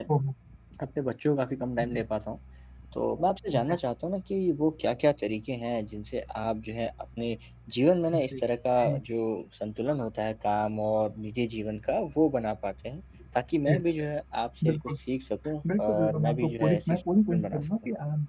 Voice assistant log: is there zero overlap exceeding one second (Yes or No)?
No